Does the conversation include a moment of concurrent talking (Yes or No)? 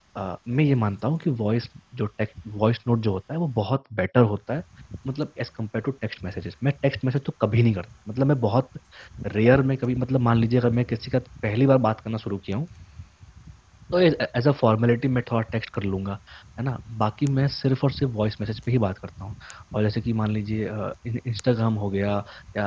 No